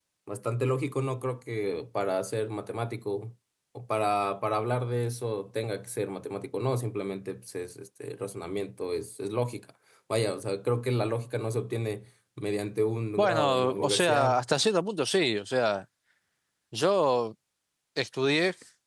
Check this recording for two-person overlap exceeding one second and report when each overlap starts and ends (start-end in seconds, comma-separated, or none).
13.2-14.4